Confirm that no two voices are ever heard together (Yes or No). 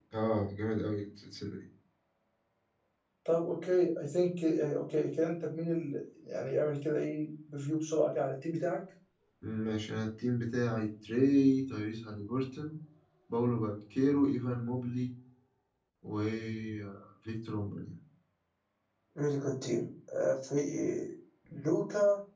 Yes